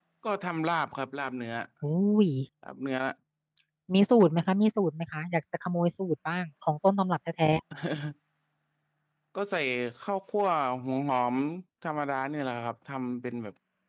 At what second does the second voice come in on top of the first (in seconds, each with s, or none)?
none